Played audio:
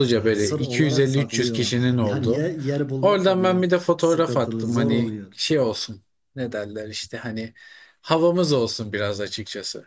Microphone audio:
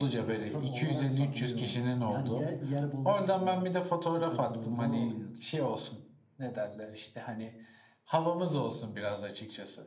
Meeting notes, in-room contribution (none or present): none